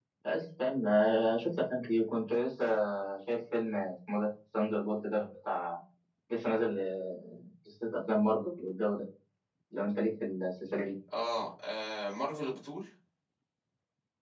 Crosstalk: none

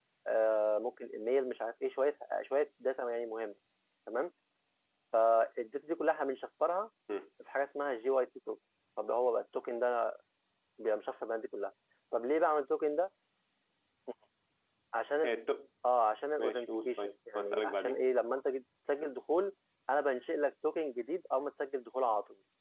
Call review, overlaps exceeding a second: present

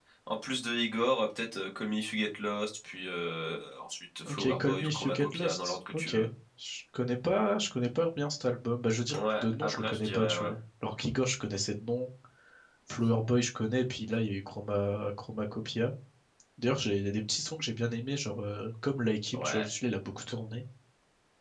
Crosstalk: present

